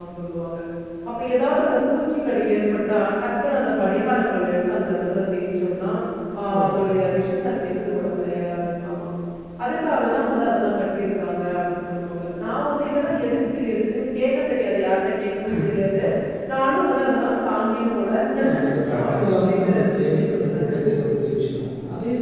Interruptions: present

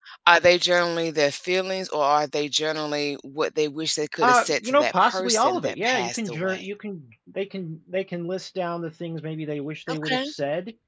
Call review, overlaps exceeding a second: present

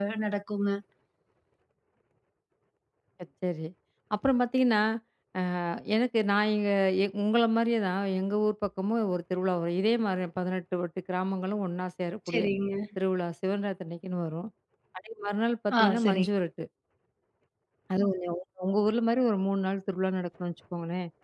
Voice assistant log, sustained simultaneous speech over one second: none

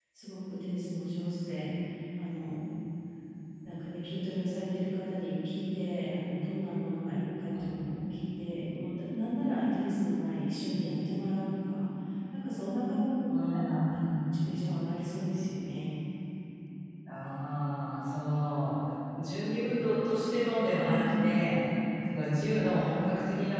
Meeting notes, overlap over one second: present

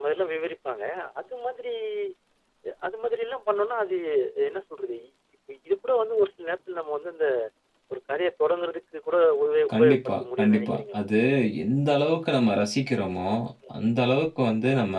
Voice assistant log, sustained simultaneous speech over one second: present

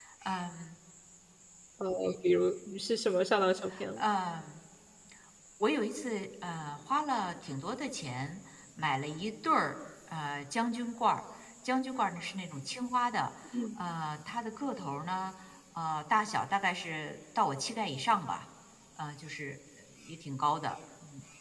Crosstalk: none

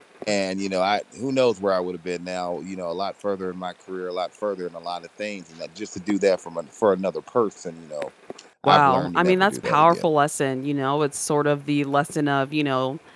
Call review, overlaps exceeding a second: present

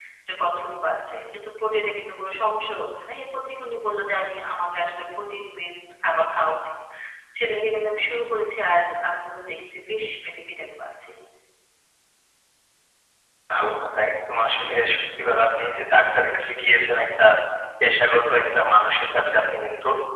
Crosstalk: none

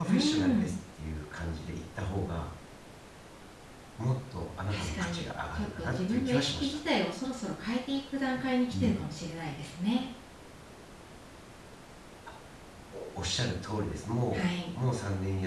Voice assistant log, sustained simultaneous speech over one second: present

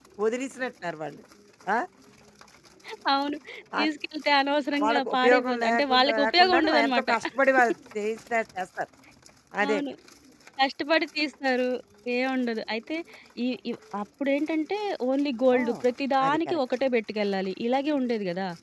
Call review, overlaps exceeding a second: present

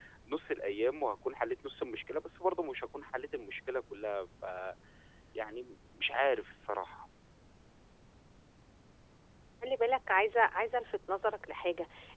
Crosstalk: none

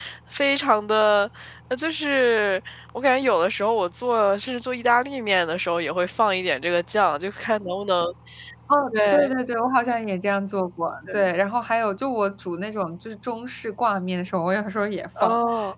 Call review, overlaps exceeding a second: none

